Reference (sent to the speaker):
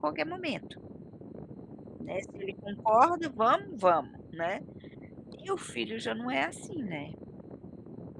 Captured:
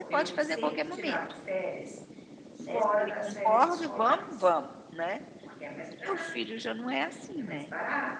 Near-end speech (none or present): present